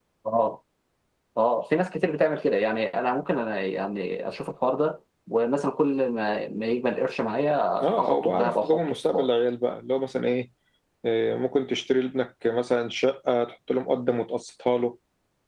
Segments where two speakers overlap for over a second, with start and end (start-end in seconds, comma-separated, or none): 7.8-9.3